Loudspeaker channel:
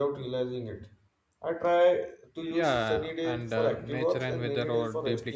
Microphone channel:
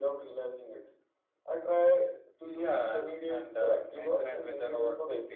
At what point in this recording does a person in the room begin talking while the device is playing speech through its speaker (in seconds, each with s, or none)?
none